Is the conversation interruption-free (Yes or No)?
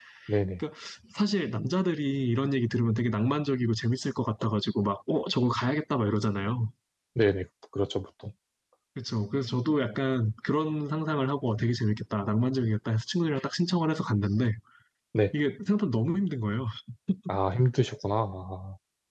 Yes